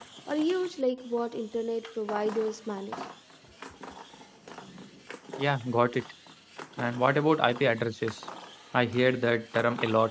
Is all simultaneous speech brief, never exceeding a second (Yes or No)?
Yes